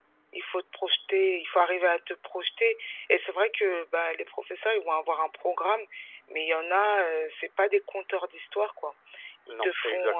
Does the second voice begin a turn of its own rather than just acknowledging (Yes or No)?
No